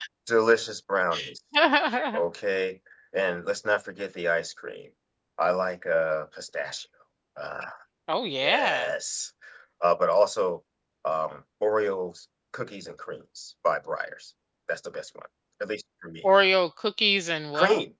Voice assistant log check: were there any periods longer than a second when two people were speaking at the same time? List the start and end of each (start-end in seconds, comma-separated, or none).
none